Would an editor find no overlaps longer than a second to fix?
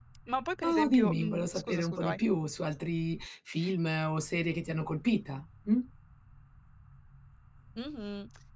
No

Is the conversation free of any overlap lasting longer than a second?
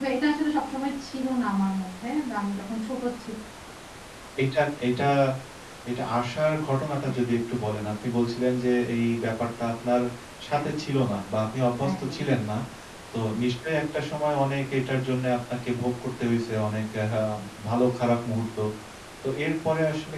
Yes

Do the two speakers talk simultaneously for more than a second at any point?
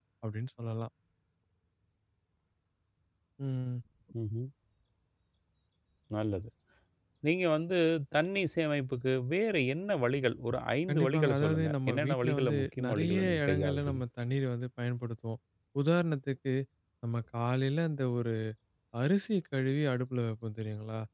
Yes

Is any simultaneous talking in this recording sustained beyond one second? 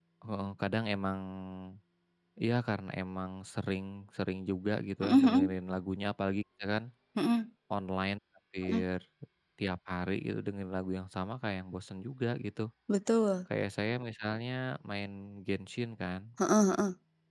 No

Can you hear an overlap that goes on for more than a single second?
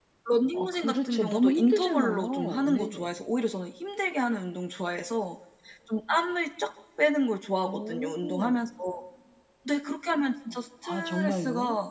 Yes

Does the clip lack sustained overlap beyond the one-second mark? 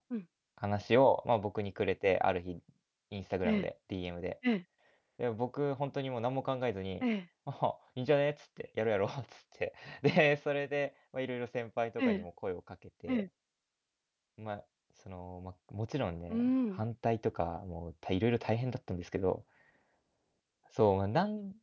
Yes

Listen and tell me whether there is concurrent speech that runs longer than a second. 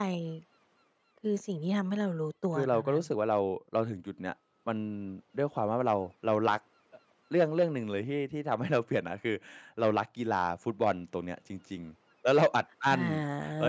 No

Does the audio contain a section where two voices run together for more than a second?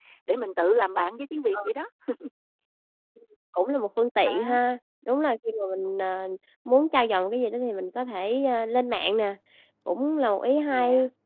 No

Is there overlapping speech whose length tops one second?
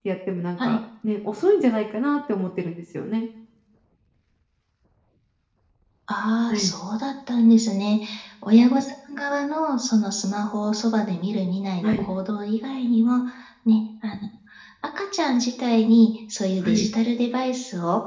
No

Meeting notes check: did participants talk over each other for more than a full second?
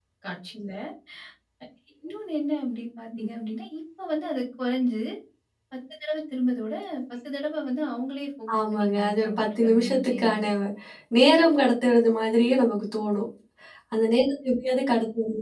Yes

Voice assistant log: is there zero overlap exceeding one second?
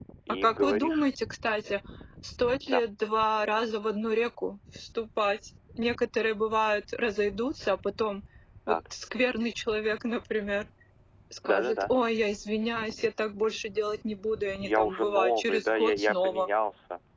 No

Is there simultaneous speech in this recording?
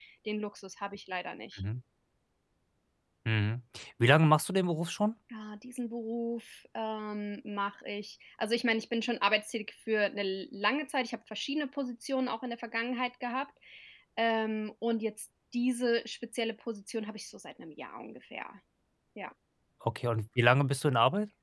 No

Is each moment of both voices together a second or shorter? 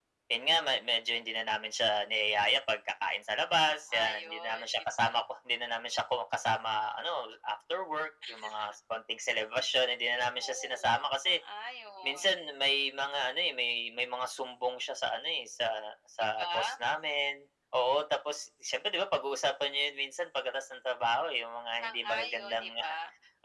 No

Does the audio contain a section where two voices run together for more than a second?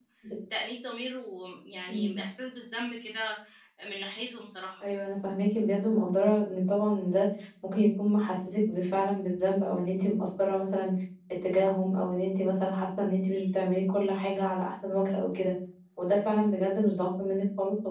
No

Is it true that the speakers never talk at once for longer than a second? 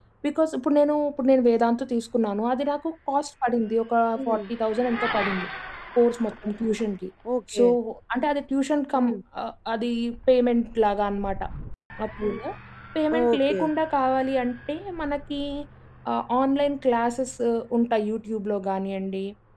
Yes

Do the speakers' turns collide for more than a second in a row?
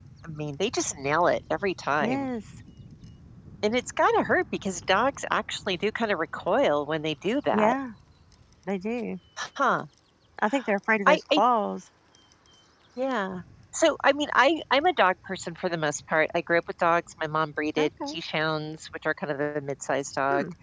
No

